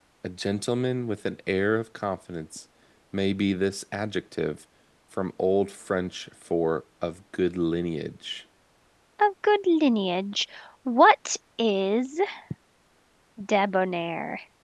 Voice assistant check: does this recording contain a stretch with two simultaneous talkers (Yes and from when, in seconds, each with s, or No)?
No